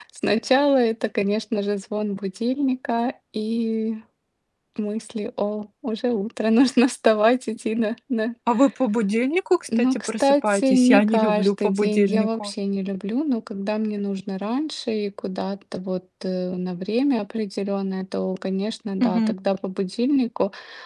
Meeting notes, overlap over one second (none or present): present